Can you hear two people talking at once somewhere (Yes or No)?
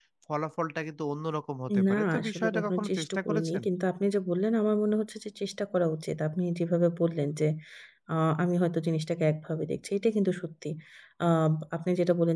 Yes